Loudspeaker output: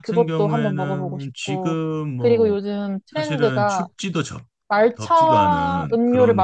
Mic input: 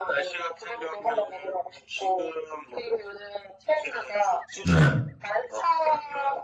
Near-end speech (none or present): present